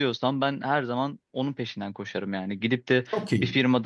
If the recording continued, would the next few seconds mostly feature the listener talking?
No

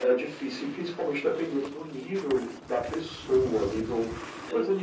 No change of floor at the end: Yes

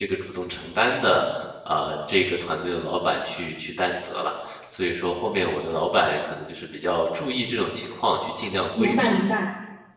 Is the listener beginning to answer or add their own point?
Yes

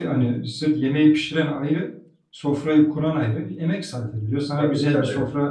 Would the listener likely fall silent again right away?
Yes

